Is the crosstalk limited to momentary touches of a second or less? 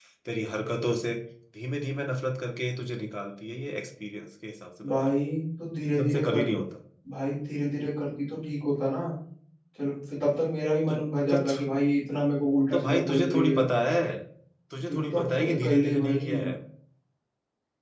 No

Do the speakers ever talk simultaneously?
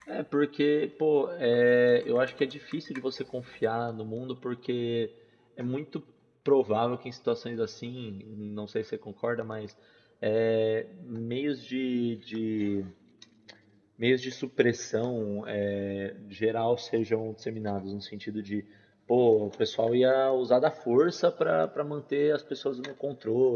No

